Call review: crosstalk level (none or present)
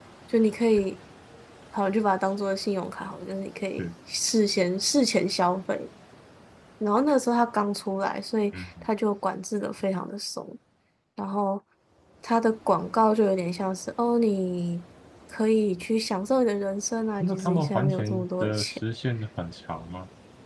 present